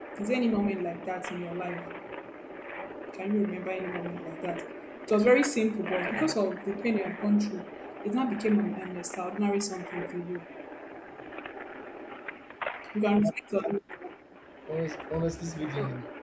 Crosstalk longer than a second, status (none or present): none